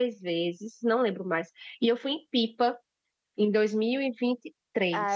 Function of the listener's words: taking over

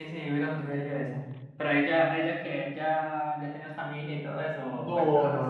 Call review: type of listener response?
taking over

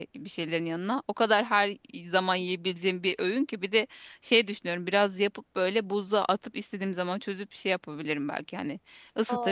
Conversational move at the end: listening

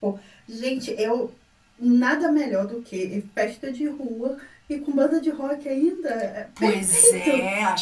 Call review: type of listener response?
taking over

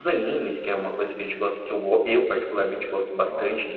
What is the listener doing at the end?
taking over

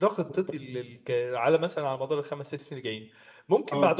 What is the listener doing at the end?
listening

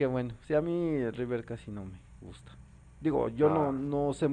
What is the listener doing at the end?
listening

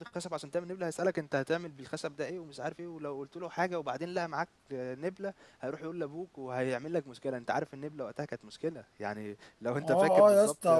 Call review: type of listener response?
taking over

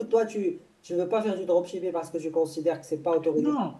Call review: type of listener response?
taking over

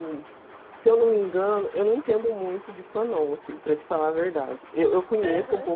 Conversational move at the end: listening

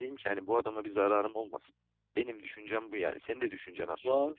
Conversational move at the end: taking over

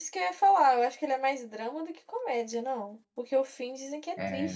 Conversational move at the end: taking over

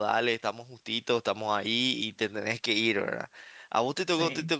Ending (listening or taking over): listening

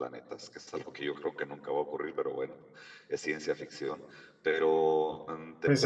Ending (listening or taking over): taking over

